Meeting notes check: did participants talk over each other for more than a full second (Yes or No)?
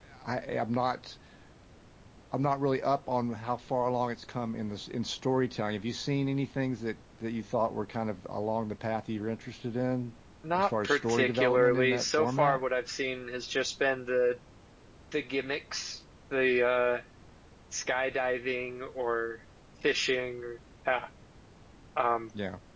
Yes